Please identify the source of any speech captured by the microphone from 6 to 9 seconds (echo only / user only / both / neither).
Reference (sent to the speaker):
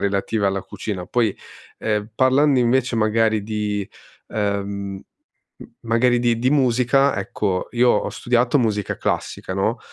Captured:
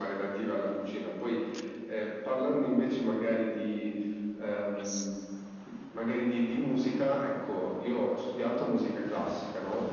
echo only